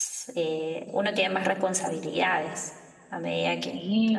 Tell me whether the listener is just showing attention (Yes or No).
No